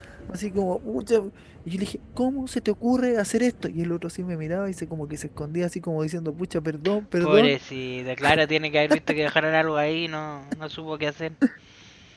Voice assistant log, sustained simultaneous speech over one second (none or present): none